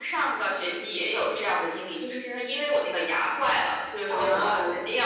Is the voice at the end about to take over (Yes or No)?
No